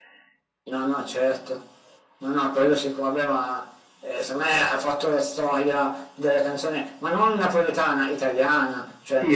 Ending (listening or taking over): taking over